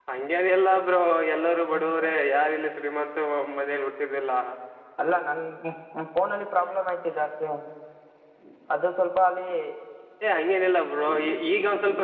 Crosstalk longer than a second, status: none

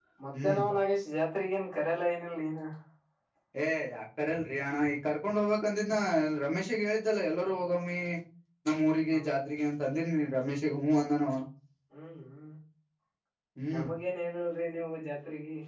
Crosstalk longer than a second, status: none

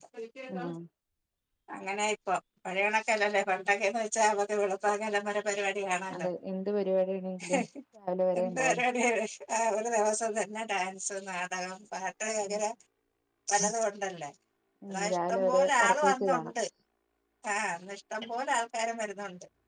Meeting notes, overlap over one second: present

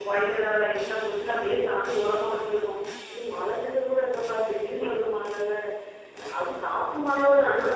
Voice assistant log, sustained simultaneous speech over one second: none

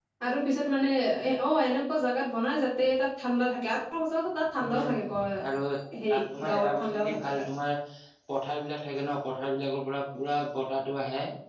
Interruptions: present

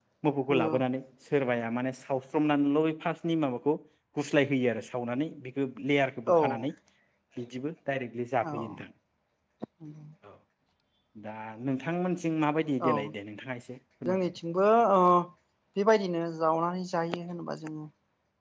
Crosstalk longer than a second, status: none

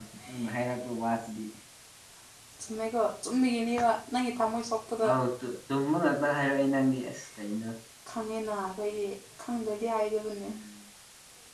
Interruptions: none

